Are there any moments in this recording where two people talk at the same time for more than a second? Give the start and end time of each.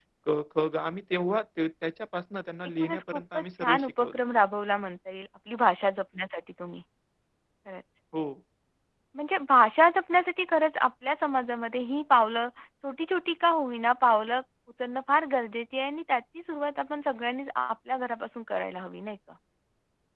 2.8-4.2

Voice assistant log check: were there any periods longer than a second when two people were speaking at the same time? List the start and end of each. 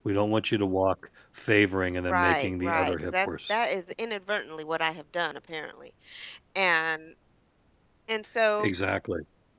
2.1-3.6

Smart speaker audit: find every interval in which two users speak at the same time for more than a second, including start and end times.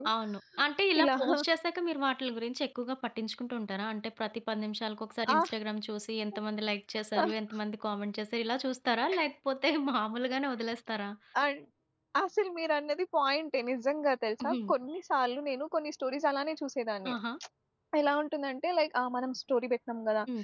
none

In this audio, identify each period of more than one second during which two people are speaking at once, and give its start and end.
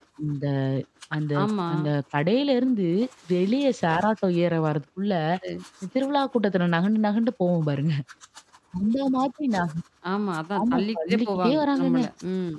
10.6-12.0

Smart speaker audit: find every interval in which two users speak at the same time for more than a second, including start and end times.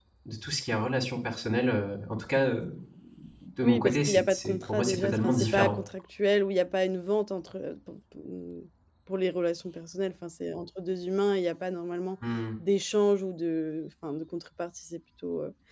3.6-5.8

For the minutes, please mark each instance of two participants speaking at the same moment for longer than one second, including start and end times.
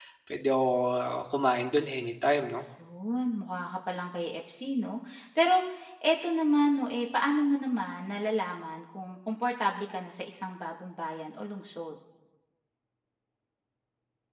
none

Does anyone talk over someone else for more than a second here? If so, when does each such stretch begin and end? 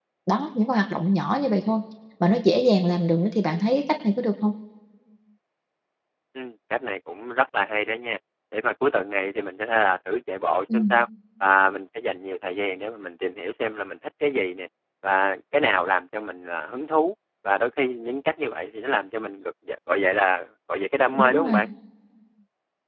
none

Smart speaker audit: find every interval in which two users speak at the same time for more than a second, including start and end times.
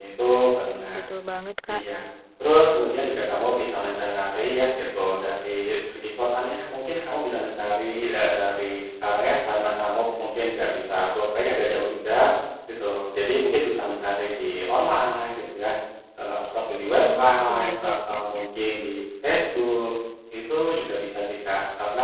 16.7-18.4

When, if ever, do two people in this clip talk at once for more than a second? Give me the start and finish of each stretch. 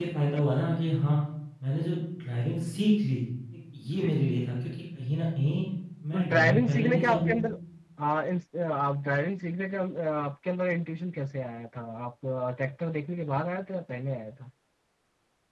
6.1-7.3

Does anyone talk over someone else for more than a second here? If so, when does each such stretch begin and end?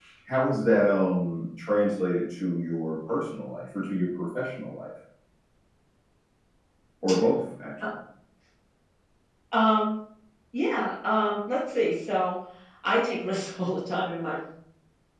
none

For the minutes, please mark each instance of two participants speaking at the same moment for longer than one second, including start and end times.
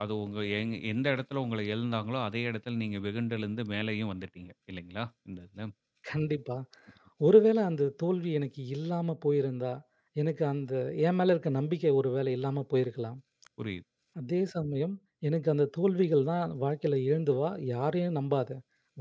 none

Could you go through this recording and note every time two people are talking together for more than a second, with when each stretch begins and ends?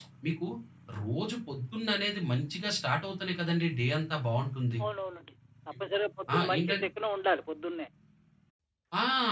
none

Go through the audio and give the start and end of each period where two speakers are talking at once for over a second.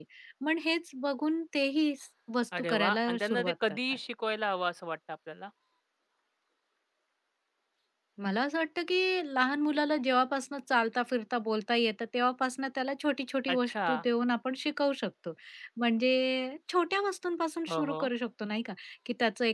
2.6-3.8

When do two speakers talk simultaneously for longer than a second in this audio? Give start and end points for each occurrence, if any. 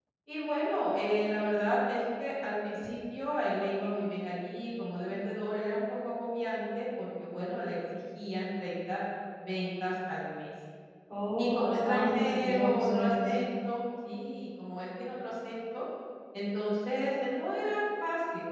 11.4-13.1

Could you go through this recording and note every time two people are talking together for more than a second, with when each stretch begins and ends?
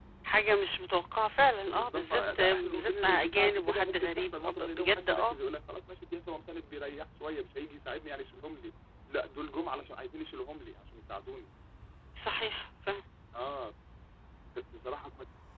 1.6-5.3

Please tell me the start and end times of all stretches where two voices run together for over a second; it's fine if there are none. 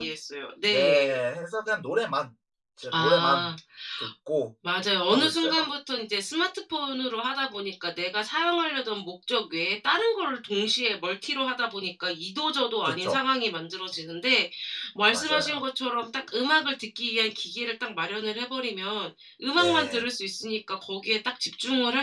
none

